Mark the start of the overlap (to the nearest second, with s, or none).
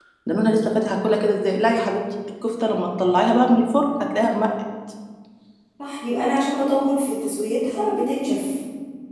none